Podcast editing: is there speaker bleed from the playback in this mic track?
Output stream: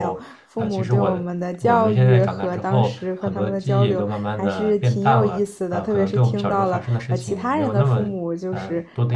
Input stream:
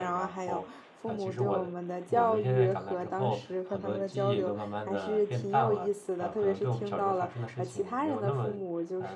Yes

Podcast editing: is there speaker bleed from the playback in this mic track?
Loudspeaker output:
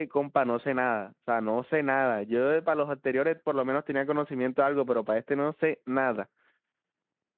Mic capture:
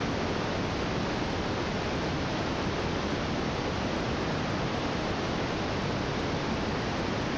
No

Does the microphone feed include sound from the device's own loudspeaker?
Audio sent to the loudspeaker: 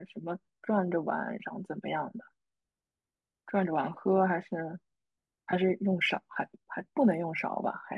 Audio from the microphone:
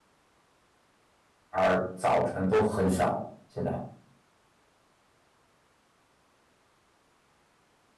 No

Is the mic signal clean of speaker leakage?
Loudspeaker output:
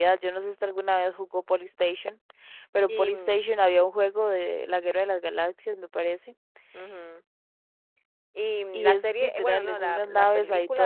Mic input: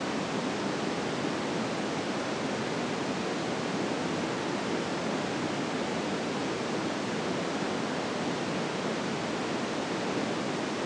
Yes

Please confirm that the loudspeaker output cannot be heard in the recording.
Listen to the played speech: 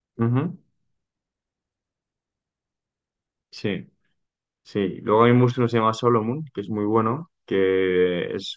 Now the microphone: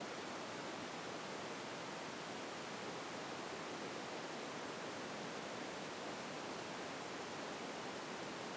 Yes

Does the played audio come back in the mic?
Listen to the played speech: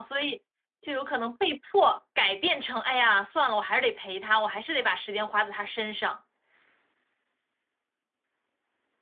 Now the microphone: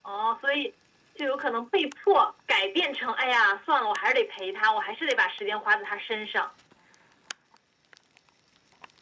Yes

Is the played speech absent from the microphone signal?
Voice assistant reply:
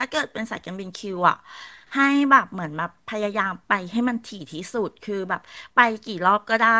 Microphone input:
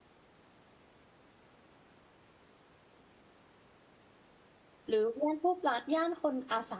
Yes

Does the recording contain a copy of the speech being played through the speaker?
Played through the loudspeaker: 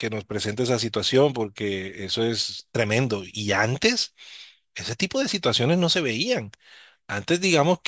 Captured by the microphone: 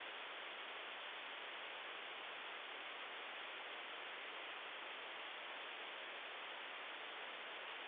No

